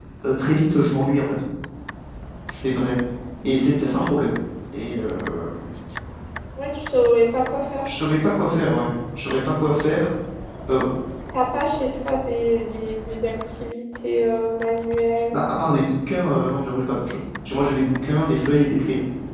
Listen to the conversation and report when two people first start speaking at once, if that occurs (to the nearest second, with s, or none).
none